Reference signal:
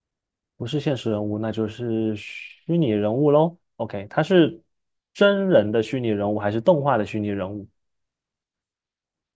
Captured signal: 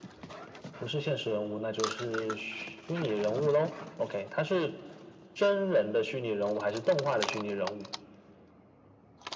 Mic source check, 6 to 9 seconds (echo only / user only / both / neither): echo only